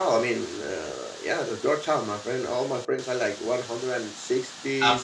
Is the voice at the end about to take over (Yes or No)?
No